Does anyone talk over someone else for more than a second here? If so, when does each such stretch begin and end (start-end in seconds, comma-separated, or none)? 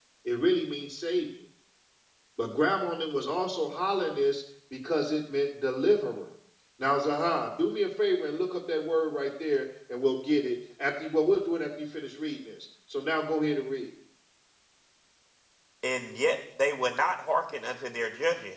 none